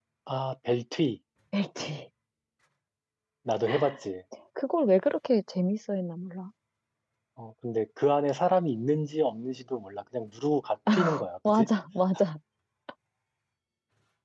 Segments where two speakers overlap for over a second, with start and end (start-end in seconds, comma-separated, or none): none